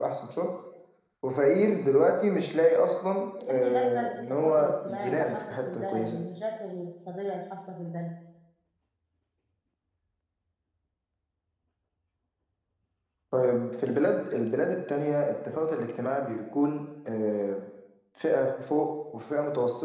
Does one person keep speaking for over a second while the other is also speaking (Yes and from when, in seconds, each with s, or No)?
Yes, from 3.5 s